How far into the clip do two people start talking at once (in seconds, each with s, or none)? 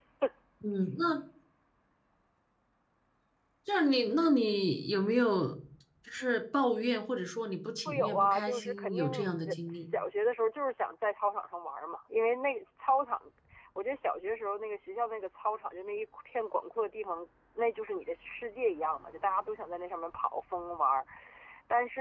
7.8 s